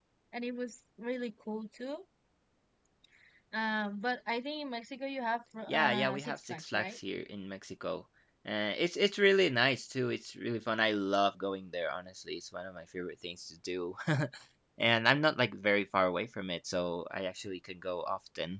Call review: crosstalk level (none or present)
present